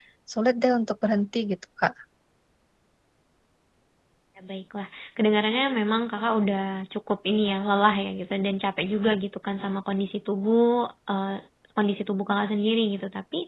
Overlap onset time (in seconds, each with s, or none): none